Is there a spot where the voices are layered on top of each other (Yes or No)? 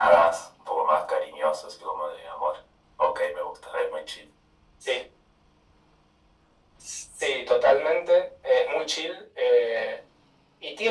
No